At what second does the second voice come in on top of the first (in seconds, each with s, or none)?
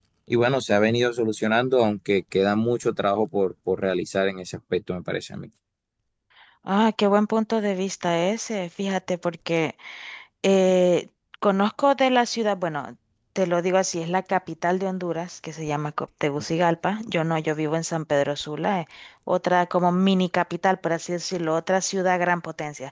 none